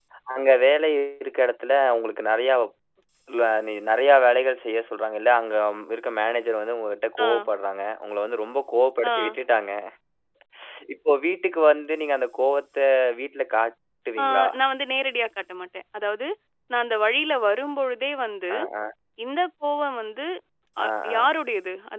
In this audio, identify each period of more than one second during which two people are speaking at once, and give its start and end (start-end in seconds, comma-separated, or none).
none